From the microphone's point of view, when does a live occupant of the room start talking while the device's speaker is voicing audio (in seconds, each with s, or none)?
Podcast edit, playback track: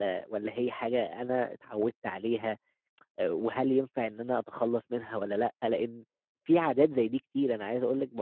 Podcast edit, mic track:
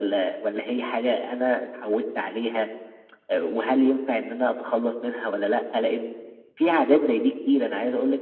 none